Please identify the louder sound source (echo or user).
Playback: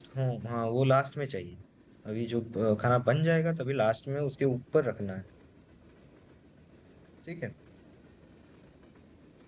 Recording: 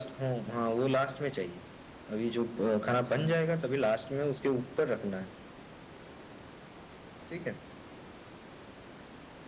echo